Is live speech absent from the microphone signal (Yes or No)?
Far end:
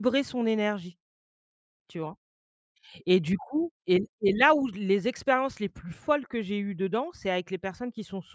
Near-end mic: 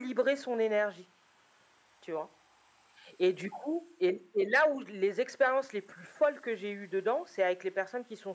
Yes